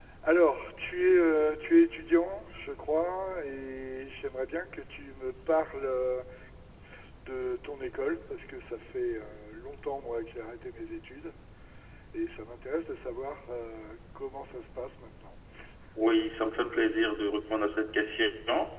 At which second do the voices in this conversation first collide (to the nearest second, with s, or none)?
none